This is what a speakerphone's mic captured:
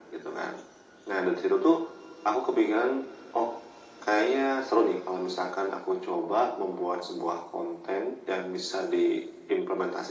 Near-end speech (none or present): none